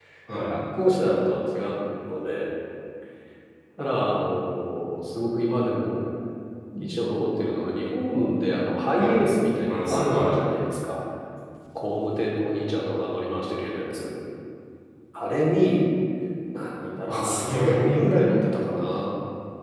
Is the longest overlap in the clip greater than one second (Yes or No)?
Yes